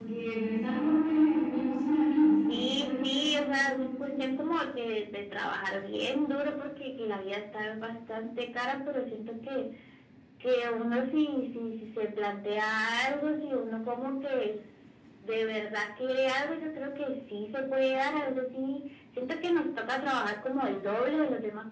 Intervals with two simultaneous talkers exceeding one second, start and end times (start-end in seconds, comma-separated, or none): 2.5-4.2